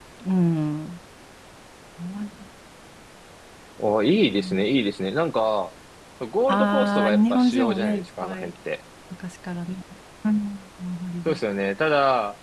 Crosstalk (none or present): present